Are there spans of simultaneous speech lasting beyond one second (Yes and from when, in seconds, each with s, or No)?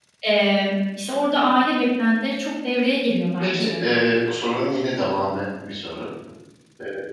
No